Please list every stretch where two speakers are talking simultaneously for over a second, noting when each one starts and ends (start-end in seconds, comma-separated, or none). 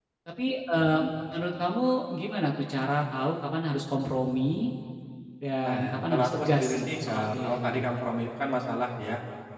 5.6-7.8